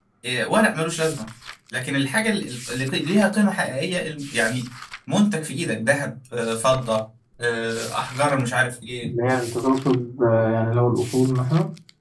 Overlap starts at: none

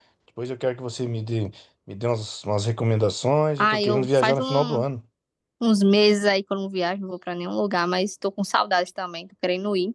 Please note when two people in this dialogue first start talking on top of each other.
3.6 s

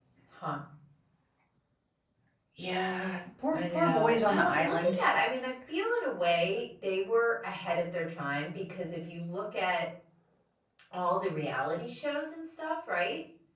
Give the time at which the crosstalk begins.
3.5 s

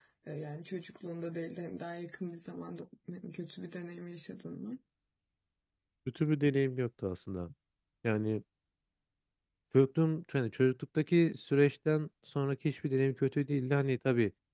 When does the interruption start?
none

